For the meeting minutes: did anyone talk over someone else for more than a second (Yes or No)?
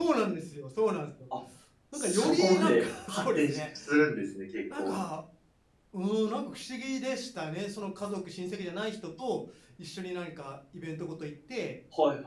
Yes